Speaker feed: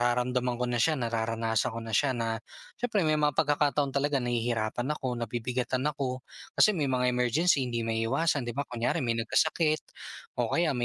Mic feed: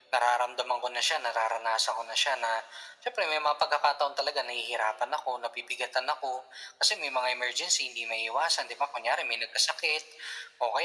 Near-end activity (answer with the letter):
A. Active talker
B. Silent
B